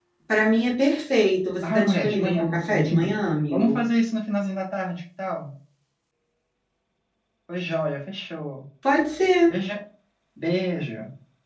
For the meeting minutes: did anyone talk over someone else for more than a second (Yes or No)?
Yes